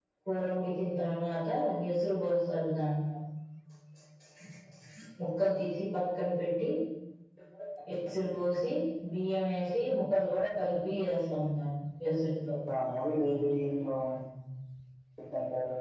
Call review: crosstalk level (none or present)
none